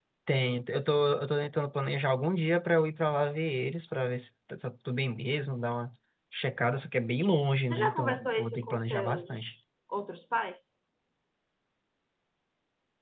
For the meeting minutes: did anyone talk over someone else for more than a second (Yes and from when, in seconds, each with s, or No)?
Yes, from 7.6 s